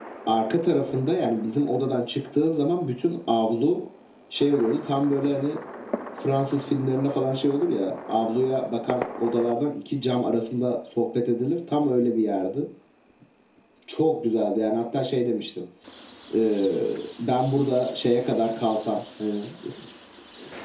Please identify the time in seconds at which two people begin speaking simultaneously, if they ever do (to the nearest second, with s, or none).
none